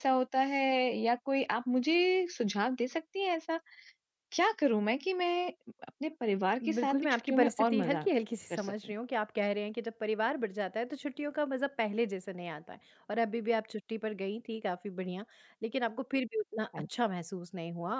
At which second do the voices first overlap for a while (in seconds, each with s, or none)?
6.8 s